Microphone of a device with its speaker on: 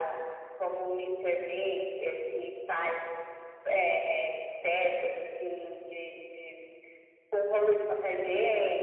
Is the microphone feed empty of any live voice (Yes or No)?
Yes